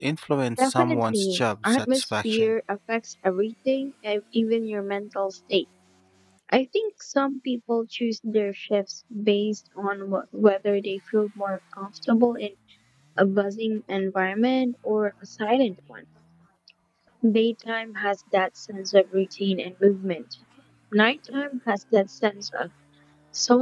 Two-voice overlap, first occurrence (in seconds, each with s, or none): 0.6 s